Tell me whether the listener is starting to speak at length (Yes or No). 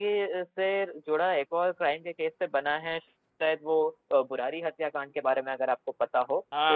Yes